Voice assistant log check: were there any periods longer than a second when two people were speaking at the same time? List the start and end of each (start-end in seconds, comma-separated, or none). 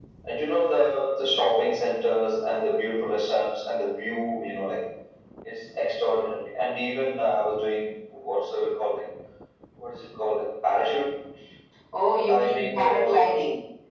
12.1-13.3